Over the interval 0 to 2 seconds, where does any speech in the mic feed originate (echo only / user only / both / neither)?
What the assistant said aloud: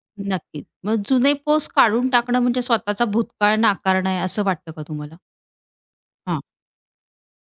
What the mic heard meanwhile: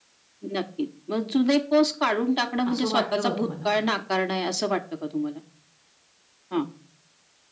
echo only